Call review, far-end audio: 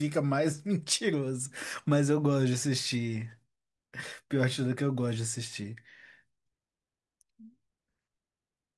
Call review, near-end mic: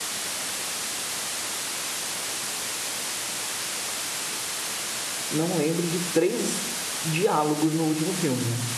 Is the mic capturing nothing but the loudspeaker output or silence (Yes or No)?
No